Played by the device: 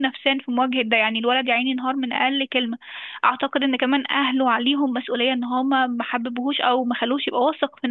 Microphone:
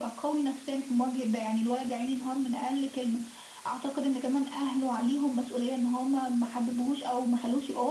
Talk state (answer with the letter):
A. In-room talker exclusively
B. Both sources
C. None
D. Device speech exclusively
D